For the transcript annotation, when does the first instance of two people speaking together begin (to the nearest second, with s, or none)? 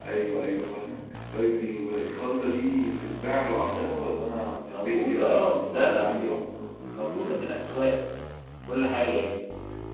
5 s